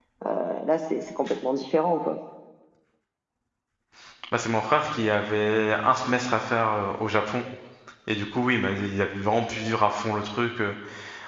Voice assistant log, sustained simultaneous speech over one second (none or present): none